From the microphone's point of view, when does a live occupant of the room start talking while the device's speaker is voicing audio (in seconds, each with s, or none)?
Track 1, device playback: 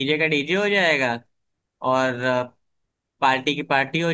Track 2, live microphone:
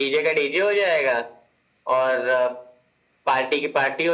none